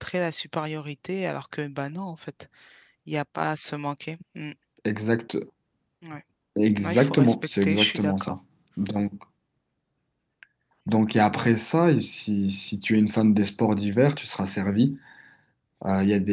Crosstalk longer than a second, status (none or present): present